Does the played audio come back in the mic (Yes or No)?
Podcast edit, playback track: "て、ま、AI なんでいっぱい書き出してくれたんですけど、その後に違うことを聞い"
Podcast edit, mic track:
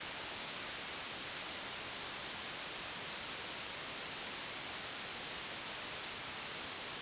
No